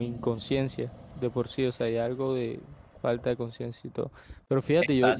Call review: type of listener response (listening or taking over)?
listening